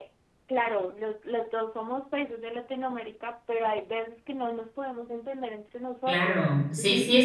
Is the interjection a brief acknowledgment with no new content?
No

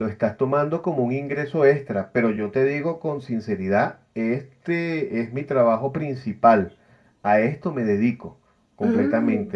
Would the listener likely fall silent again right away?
Yes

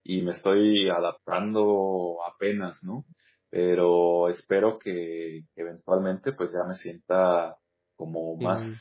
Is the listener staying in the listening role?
Yes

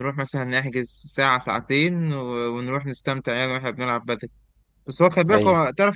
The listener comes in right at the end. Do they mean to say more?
No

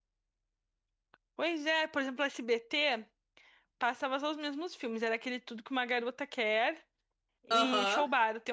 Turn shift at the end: No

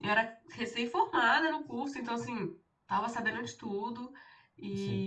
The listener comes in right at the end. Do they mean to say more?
No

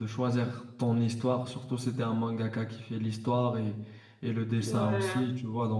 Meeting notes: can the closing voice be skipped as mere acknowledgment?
Yes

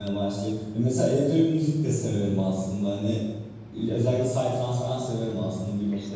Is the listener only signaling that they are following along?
No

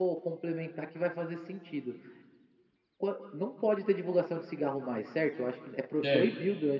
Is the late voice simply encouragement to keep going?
Yes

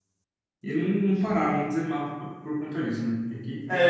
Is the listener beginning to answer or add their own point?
Yes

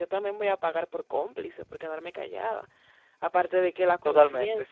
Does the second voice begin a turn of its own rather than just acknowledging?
No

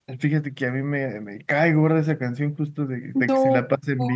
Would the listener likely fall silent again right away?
Yes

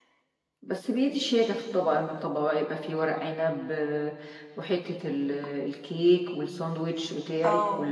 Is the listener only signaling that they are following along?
No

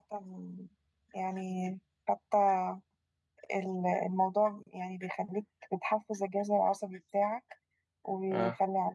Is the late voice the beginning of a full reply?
No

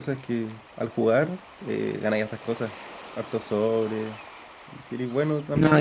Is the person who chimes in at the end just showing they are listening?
Yes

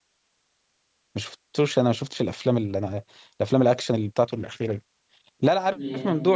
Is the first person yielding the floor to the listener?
No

